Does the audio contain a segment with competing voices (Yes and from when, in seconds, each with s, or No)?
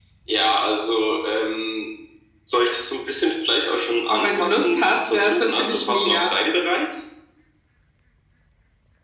Yes, from 4.1 s